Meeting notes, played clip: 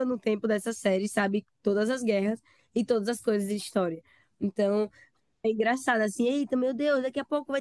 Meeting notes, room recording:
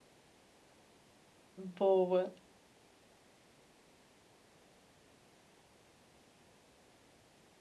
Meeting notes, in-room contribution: present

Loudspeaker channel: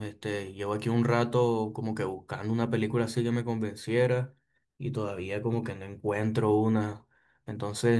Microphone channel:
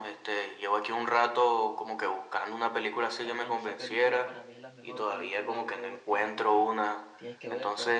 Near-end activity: present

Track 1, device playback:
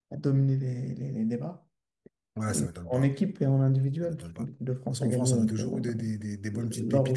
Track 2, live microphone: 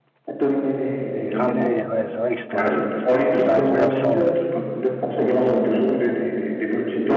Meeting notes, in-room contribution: present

